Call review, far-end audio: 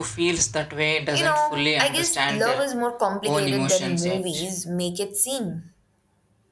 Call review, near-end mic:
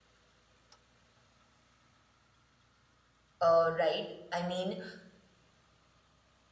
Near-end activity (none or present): present